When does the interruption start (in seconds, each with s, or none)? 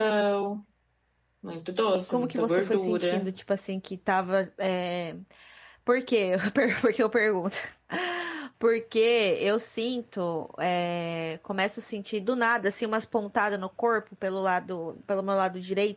1.9 s